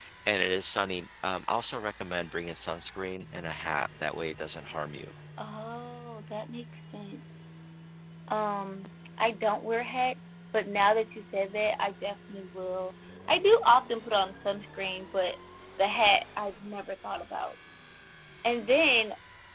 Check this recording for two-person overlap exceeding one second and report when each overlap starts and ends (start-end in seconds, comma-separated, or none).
none